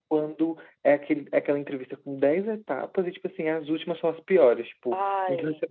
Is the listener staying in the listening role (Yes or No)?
Yes